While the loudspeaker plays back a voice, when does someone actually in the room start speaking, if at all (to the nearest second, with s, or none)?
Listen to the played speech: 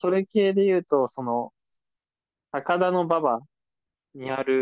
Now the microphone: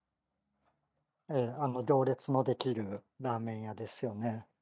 1 s